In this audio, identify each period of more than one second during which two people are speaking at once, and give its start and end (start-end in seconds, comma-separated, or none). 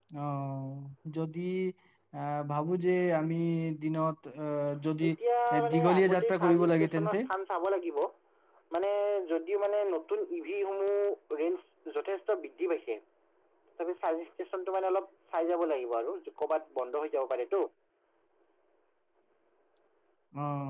5.7-7.2